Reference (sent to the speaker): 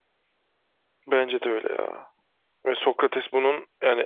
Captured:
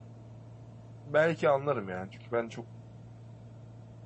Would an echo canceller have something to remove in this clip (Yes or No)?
No